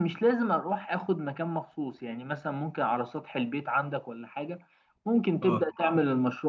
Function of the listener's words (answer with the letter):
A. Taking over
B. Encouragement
B